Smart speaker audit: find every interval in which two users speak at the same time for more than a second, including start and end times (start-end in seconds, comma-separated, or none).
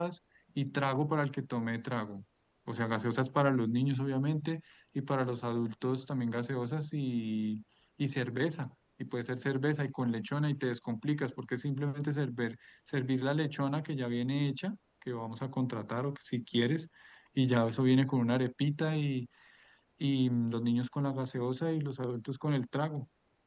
none